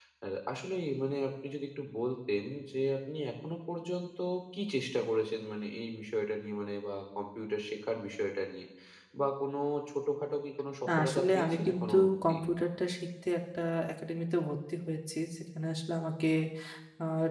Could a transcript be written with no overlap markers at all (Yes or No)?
No